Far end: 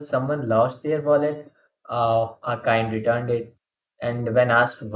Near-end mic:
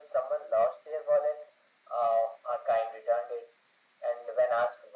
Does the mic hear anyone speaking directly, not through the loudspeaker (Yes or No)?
No